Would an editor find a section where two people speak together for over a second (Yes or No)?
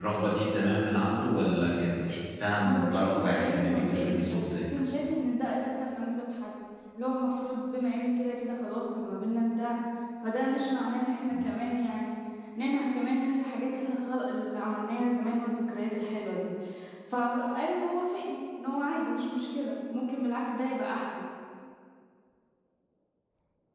Yes